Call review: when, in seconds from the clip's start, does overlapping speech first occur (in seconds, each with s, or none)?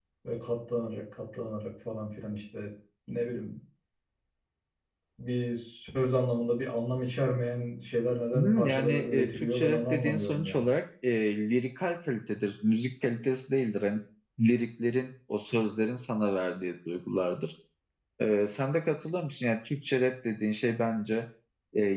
8.3 s